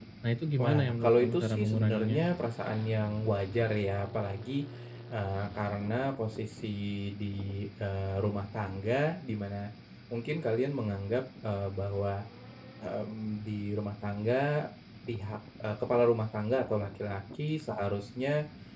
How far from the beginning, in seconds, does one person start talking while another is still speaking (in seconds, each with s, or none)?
0.6 s